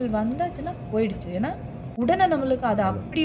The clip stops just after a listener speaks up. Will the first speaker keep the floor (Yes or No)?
Yes